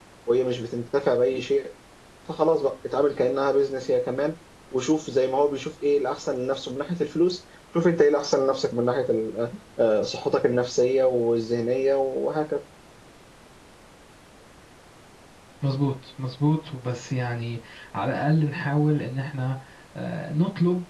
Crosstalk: none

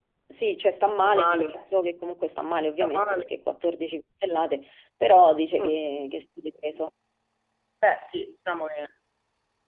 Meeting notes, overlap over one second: none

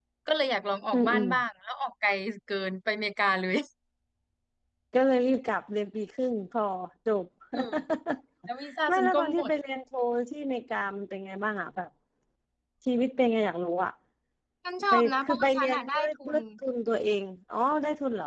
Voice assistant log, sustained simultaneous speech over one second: present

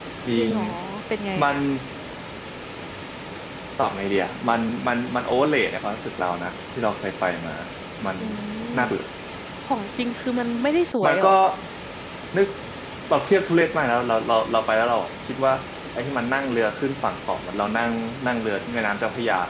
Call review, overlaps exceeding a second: none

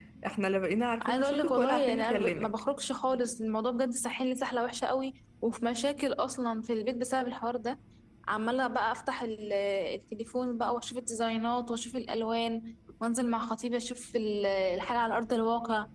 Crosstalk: present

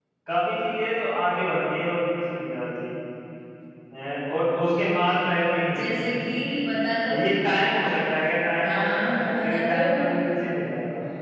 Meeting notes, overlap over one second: present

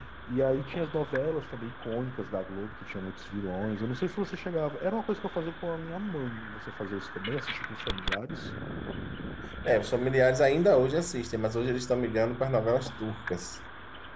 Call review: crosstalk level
none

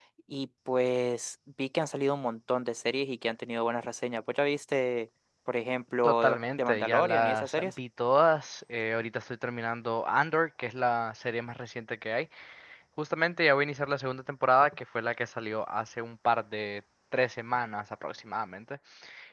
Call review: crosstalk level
present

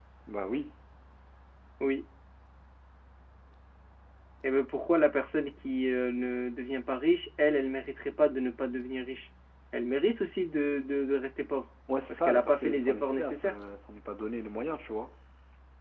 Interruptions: present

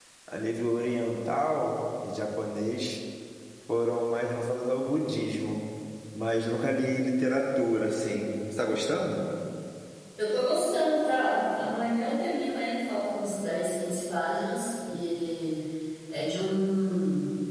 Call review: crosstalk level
none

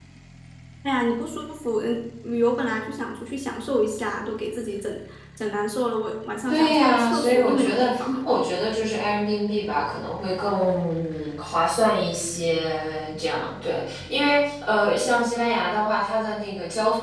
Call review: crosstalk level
present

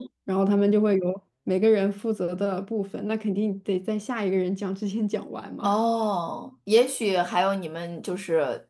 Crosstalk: none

